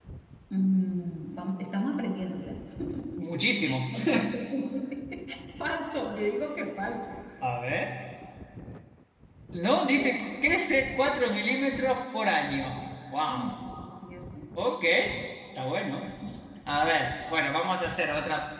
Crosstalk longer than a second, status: none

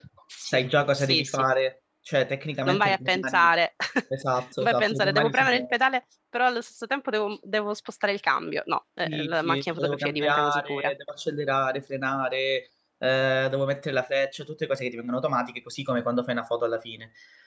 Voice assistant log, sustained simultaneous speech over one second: present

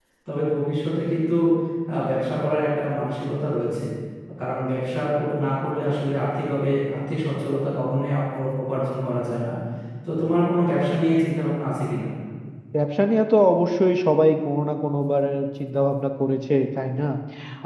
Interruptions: none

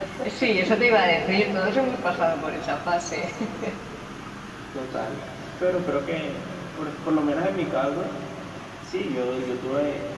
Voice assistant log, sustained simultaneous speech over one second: none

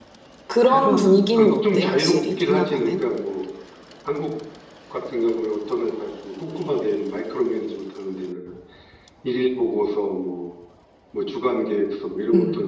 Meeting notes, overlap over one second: present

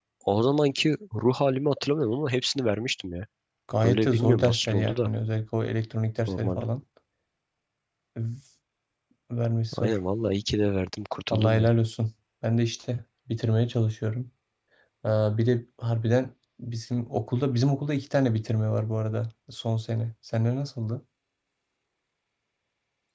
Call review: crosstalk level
present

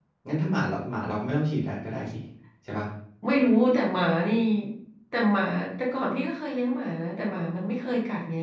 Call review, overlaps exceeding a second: none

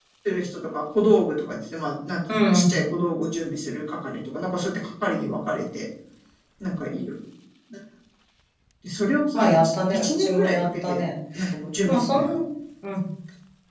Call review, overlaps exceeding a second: present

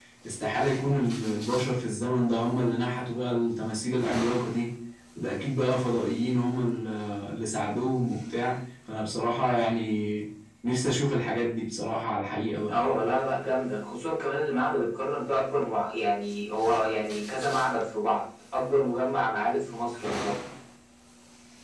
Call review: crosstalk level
none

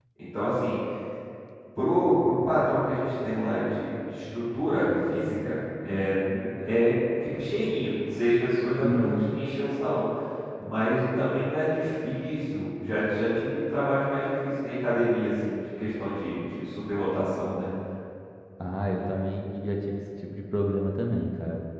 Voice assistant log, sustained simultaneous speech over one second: none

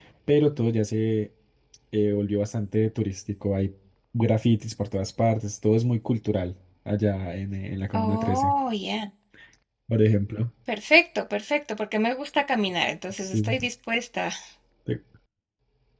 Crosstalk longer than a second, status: none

